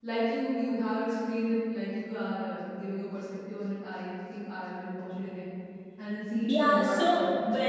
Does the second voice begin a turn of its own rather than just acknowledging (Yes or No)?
Yes